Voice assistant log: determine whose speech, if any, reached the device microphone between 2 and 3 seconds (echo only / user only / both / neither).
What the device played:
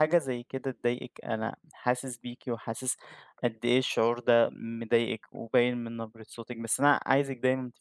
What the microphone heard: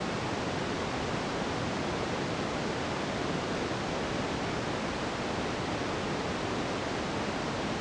neither